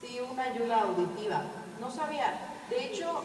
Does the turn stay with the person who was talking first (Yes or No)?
Yes